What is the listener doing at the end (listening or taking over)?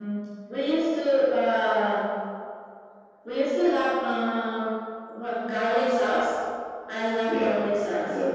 taking over